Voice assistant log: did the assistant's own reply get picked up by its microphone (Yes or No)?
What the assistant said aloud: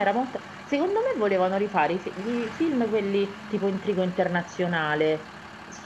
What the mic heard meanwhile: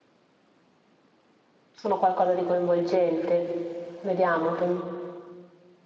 No